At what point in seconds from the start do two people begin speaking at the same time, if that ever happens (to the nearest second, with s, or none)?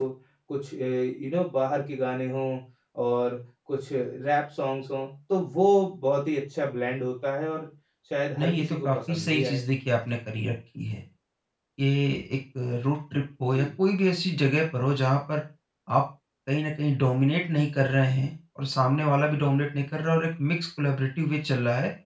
8 s